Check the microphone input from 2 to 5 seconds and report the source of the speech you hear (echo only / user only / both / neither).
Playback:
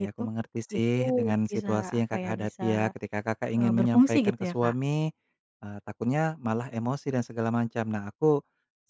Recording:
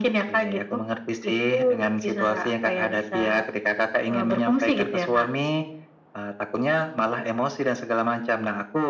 echo only